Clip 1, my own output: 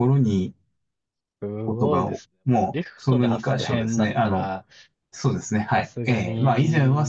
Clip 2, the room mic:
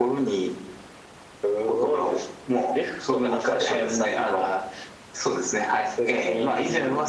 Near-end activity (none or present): none